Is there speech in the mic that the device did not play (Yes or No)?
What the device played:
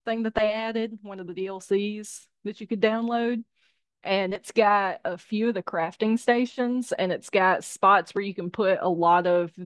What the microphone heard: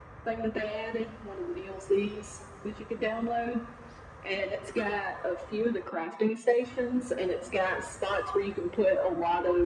No